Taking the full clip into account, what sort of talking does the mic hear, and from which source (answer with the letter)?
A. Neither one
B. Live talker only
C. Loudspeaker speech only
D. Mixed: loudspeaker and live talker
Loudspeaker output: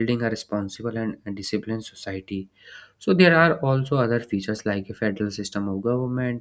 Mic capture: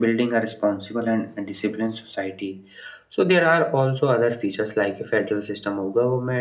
C